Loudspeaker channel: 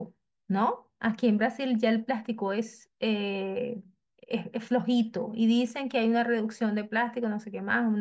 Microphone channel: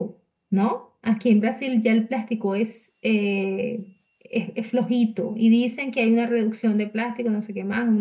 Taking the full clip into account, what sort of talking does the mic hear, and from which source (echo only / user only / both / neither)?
echo only